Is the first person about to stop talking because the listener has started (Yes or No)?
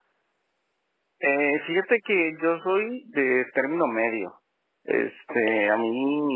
No